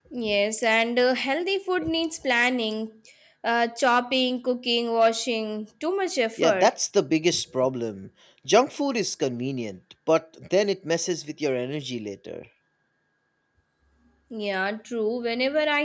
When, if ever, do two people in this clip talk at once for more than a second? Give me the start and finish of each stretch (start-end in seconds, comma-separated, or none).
none